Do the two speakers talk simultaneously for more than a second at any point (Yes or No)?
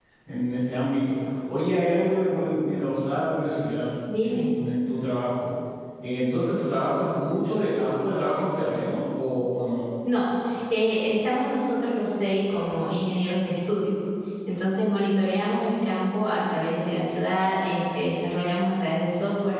No